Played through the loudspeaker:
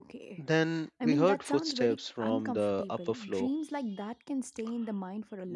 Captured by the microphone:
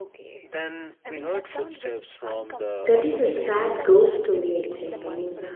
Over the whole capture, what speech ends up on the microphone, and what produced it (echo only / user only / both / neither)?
both